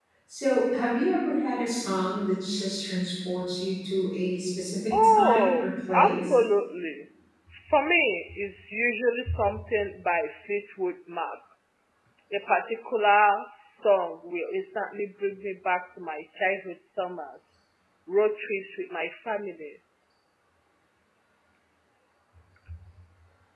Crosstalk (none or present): present